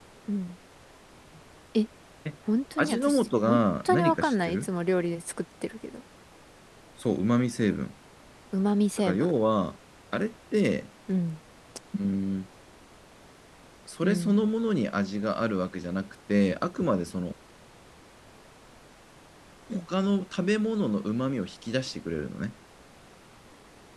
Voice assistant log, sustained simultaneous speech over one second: present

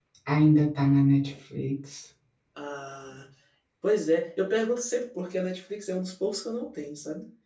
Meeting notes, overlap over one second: none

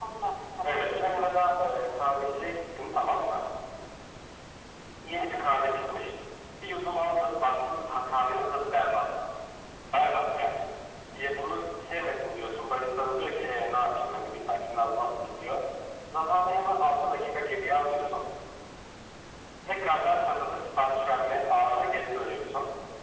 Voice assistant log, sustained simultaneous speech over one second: present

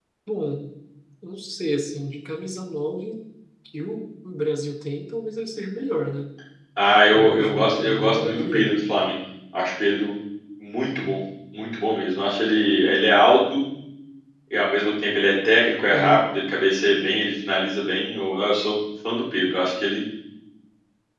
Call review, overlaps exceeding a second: present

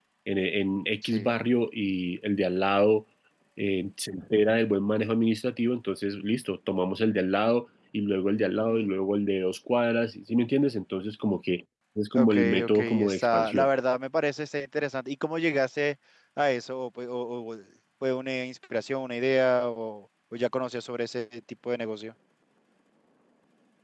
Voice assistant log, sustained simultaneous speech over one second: present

